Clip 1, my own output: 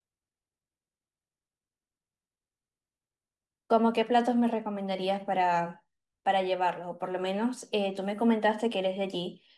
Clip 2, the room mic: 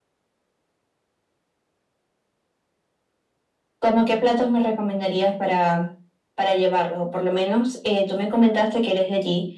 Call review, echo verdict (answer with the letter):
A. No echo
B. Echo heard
B